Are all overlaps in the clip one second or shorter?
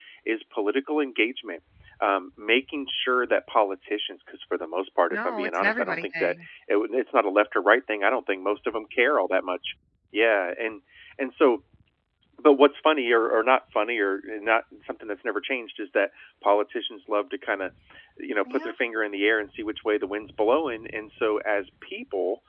No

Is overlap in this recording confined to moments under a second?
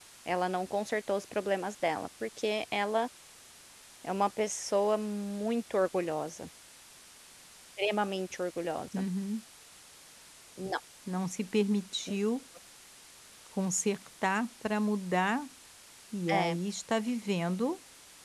Yes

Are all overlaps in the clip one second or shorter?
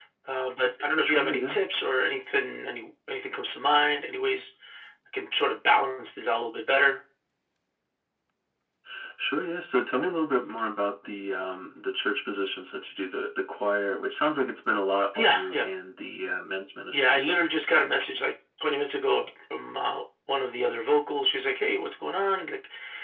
Yes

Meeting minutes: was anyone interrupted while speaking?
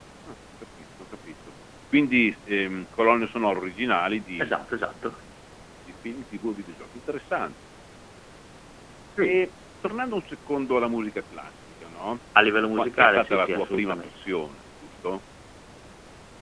Yes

